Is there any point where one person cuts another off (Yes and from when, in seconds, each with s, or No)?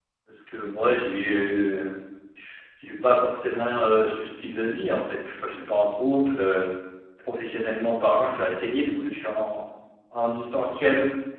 No